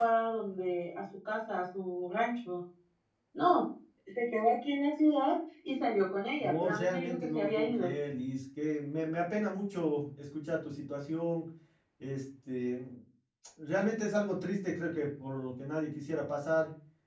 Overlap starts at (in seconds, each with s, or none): 6.4 s